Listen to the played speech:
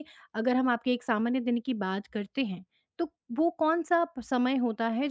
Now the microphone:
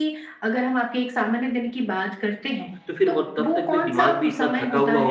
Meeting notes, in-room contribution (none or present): present